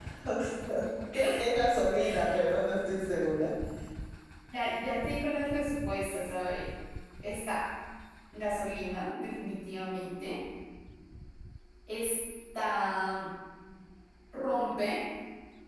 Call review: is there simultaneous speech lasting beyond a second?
No

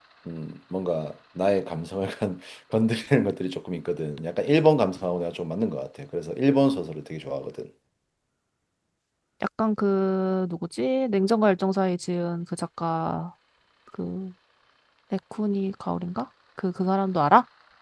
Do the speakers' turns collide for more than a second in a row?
No

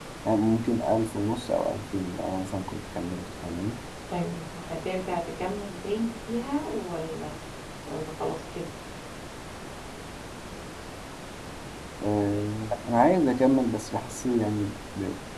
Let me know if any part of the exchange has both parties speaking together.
No

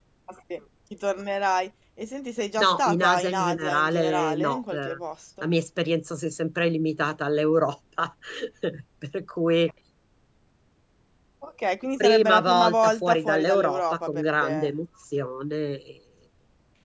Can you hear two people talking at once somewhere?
Yes, from 2.6 s

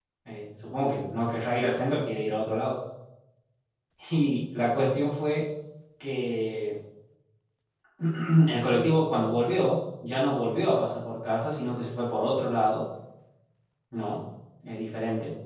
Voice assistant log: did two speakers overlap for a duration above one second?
No

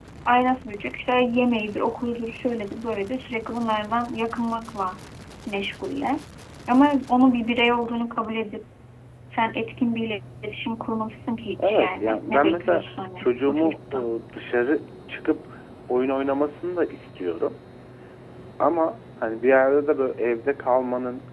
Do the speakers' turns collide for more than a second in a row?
Yes, from 11.6 s

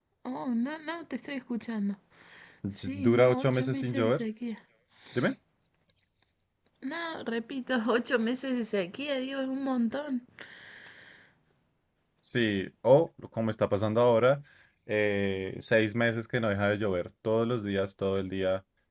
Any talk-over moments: Yes, from 2.7 s

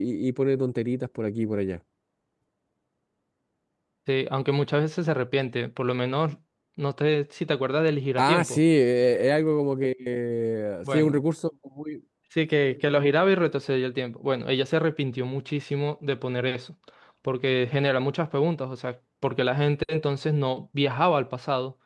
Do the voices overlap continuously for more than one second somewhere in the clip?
No

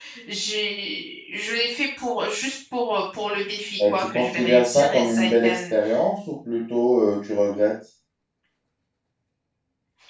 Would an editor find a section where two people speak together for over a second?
Yes, from 3.8 s

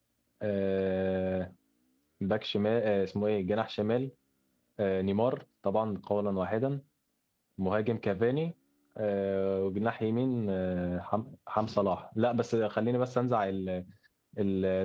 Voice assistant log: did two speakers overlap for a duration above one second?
No

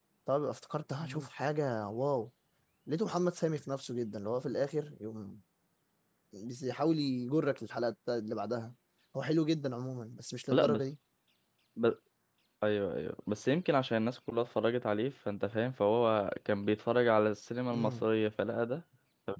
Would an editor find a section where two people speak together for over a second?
No

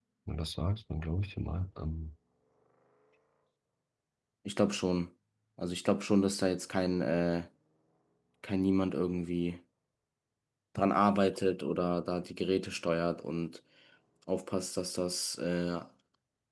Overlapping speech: No

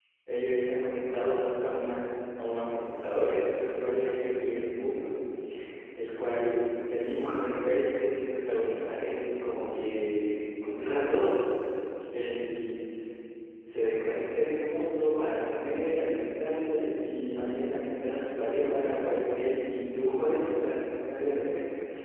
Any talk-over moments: No

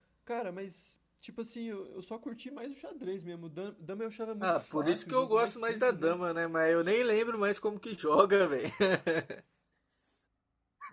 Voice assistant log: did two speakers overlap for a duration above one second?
Yes, from 4.4 s

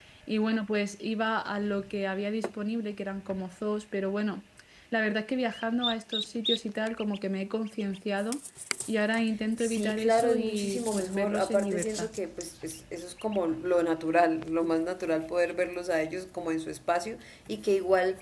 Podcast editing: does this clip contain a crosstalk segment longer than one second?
Yes, from 9.6 s

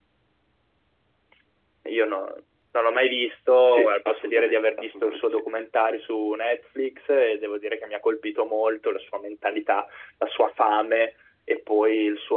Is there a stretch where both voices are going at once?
Yes, from 3.7 s

